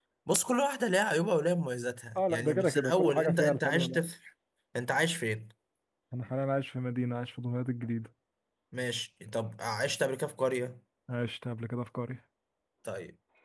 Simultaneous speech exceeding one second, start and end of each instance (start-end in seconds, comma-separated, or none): 2.1-4.0